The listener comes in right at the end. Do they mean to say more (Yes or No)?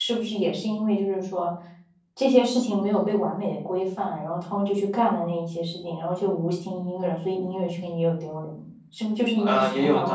Yes